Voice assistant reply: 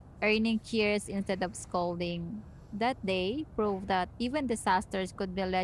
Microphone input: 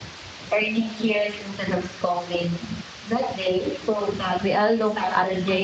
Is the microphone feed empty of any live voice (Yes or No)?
No